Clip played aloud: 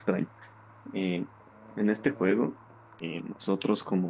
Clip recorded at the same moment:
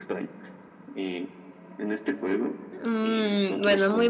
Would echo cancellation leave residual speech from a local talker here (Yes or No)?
Yes